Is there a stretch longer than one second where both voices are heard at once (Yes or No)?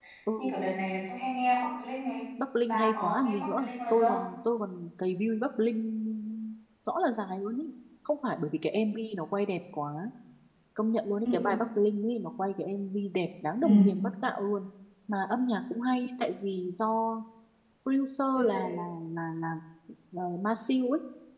Yes